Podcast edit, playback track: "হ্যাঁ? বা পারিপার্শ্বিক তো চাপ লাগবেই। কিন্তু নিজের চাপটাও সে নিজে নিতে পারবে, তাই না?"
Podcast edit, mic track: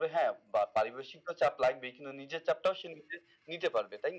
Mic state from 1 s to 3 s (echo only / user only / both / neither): echo only